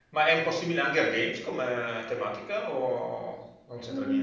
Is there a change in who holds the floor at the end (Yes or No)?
Yes